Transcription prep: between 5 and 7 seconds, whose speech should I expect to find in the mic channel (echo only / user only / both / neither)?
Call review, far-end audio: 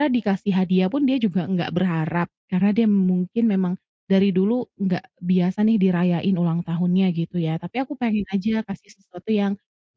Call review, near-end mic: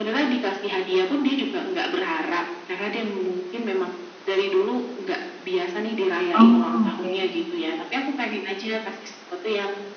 both